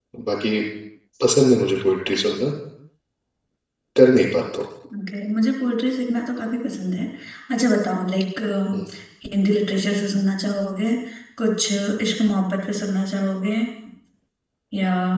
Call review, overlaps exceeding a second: none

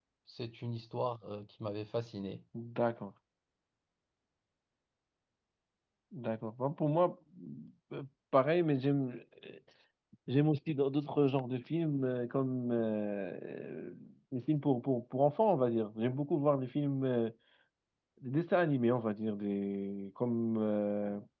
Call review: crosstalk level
none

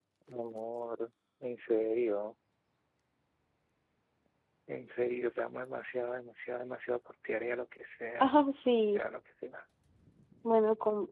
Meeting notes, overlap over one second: none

